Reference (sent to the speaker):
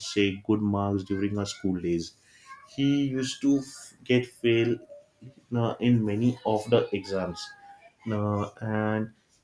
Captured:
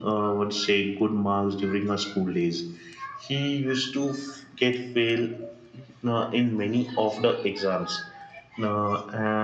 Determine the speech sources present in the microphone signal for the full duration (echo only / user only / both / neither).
echo only